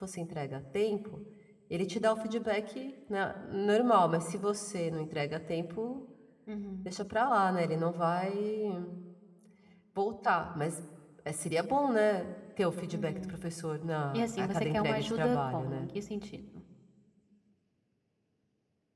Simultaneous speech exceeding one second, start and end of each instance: 14.1-15.9

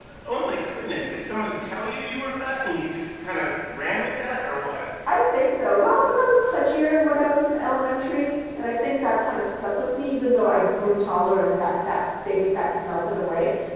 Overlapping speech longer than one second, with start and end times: none

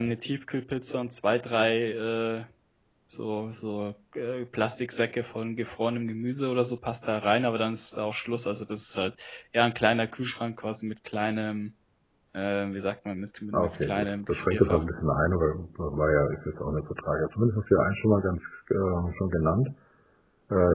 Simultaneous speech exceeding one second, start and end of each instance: 13.5-14.8

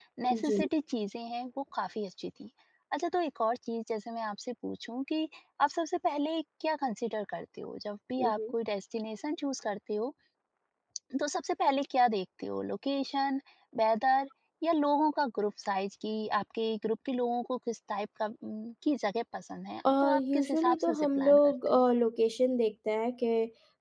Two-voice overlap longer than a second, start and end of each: 20.0-21.8

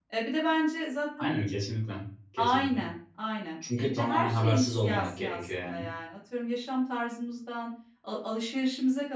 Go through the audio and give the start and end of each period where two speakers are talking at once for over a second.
3.8-5.9

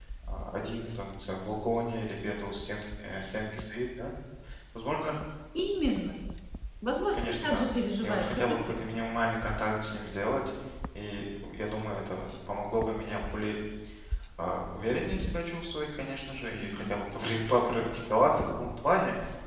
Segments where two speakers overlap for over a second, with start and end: 7.1-8.8

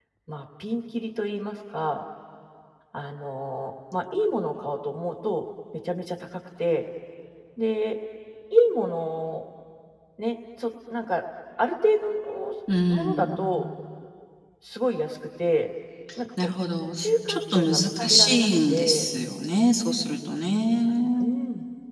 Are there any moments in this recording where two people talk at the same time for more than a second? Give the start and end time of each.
17.0-19.1

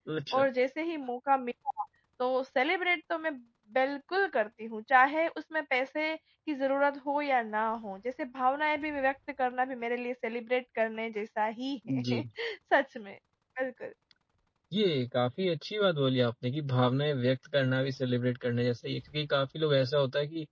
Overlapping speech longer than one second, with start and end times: none

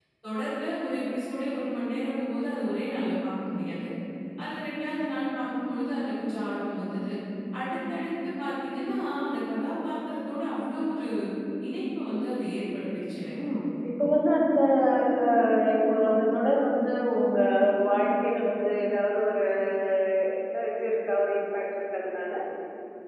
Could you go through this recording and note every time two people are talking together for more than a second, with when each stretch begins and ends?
none

